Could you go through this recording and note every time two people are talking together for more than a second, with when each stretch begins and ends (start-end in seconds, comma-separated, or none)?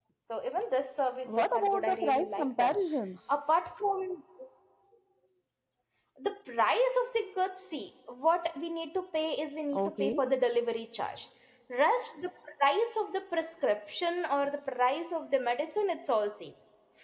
1.2-2.8